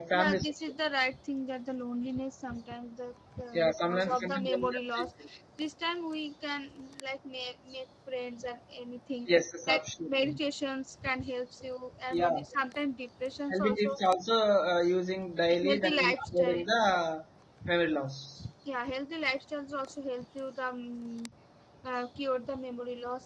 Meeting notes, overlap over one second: present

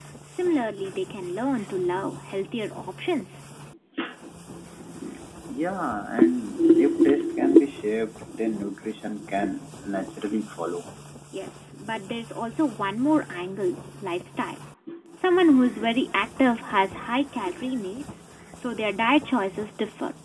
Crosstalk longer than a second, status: none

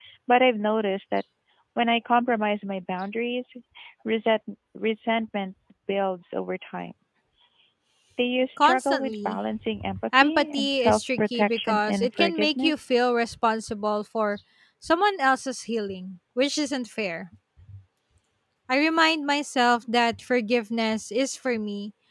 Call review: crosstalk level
present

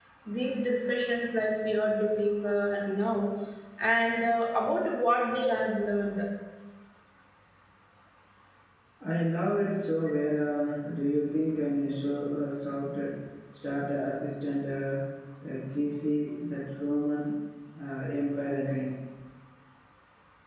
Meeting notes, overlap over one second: none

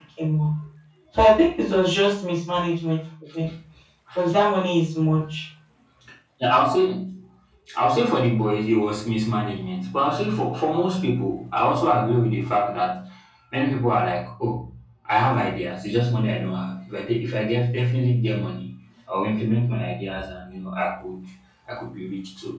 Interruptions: none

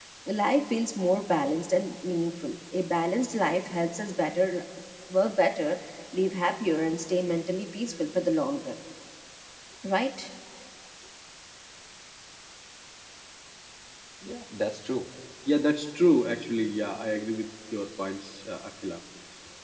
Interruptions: none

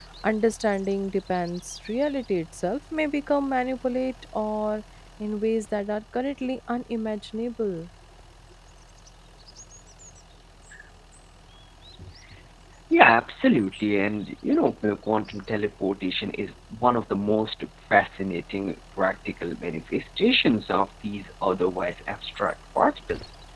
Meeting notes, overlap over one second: none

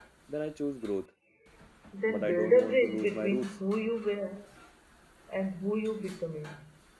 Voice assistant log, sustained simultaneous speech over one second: present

